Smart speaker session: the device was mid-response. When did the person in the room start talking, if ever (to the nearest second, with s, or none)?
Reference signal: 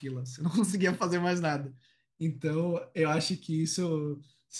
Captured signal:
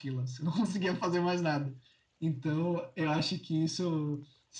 none